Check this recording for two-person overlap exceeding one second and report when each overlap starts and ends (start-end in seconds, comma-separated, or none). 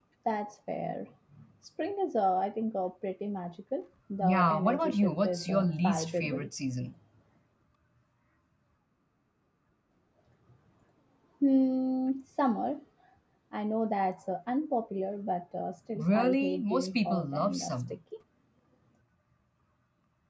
4.2-6.5, 16.0-18.0